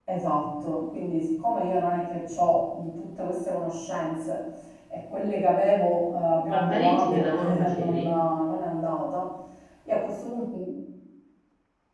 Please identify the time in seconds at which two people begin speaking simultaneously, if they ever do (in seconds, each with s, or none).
6.5 s